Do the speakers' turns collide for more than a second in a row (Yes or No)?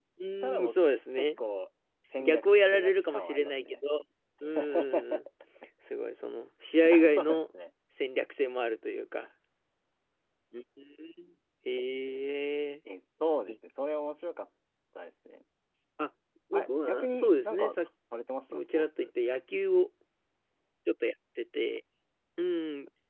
Yes